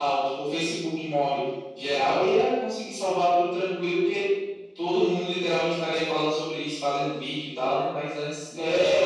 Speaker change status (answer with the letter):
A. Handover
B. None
A